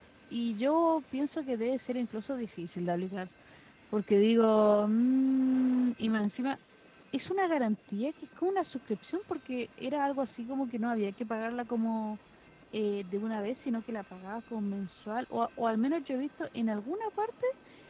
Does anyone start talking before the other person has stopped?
No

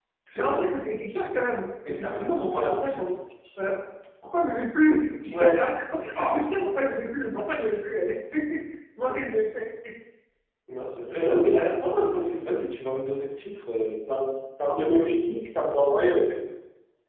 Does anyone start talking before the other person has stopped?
Yes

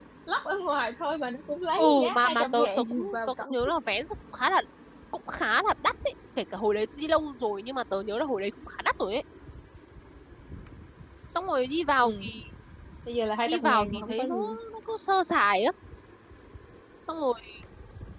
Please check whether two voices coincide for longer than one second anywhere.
Yes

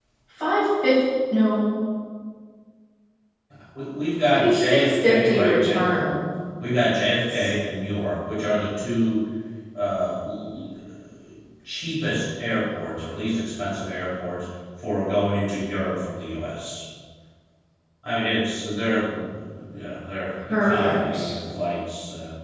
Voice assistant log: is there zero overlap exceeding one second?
No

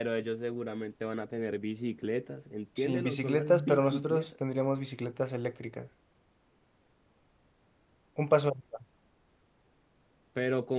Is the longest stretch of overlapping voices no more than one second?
No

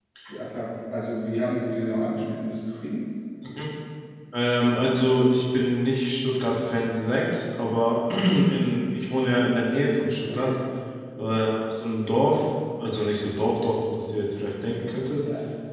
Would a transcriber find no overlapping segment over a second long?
Yes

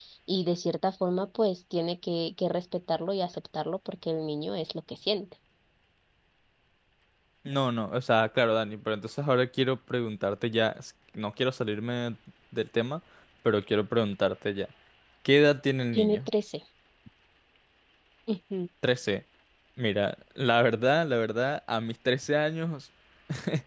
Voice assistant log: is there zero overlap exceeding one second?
Yes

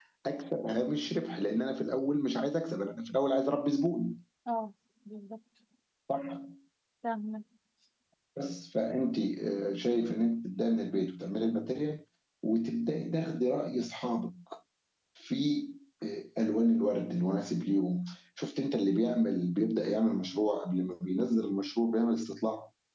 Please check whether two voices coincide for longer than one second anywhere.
No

